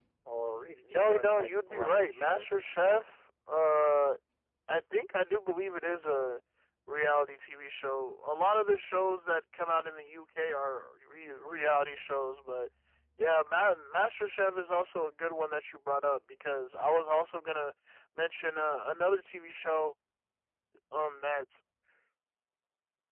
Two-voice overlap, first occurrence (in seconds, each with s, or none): 0.8 s